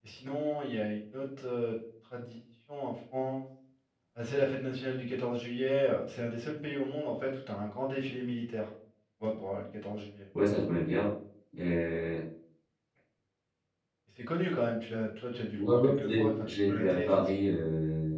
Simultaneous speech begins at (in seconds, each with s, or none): 15.5 s